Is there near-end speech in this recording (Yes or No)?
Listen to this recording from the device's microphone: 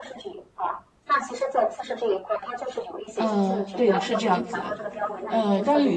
Yes